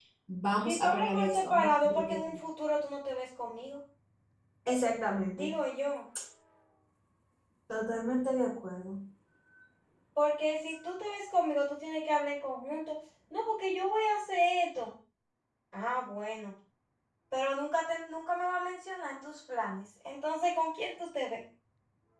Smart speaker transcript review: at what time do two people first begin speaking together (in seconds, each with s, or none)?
0.6 s